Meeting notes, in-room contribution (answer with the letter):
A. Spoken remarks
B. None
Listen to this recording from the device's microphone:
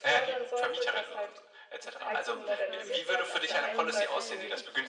A